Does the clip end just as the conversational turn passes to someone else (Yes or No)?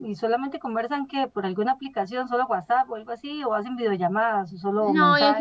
Yes